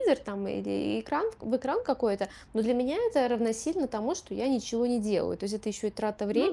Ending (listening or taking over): listening